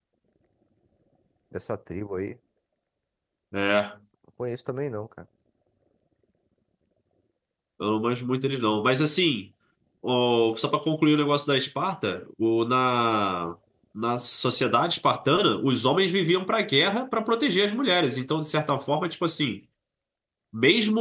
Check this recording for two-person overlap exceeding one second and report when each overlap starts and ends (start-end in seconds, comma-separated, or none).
none